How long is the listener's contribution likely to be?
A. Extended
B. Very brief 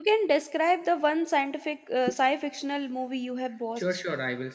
A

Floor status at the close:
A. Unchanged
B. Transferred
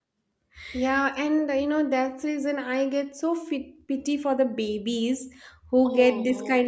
A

